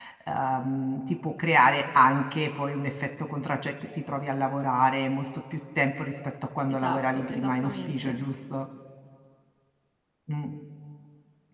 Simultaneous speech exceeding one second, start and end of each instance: 6.7-8.2

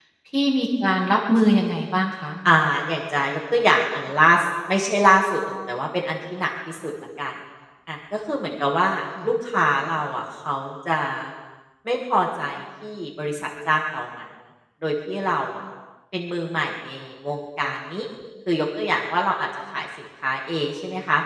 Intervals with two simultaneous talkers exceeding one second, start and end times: none

